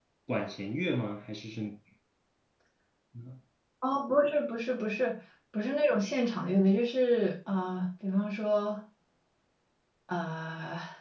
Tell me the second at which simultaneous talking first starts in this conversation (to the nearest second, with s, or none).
none